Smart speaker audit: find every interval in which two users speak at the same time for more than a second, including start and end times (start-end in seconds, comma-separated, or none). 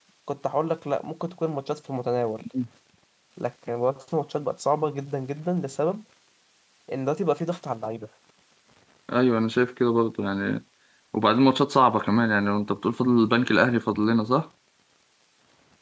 none